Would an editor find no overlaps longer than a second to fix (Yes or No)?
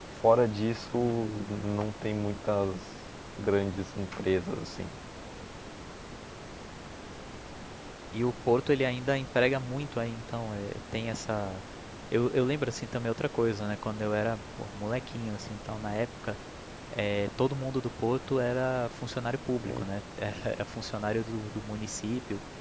Yes